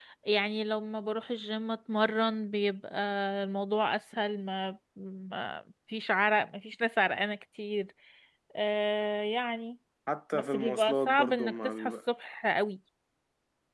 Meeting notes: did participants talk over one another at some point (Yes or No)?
Yes